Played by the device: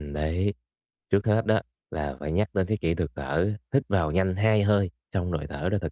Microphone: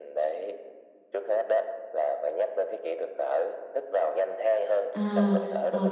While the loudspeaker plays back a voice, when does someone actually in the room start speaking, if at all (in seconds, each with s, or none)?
4.9 s